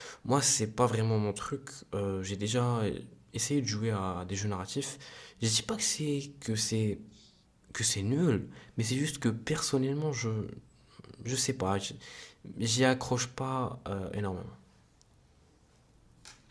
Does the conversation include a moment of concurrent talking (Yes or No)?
No